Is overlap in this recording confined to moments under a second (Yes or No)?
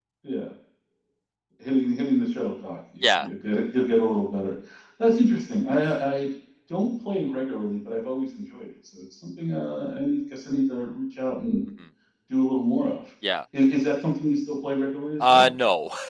Yes